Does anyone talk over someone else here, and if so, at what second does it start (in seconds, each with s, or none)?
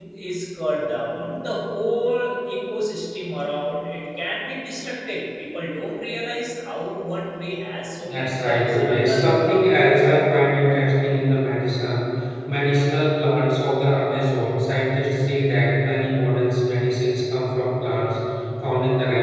8.0 s